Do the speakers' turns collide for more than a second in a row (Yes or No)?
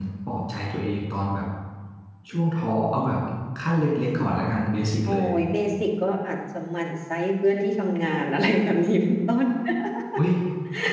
No